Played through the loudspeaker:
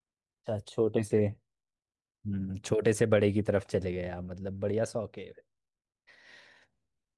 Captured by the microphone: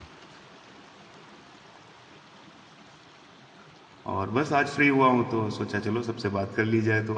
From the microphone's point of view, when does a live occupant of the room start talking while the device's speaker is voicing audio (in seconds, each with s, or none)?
4.1 s